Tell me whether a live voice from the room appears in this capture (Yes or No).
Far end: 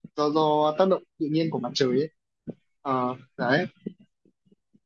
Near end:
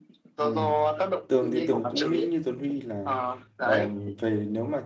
Yes